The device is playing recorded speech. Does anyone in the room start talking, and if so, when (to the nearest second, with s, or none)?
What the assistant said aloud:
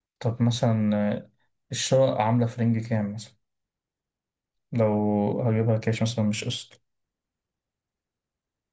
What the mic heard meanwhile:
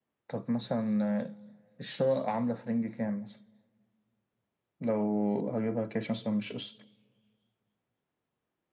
none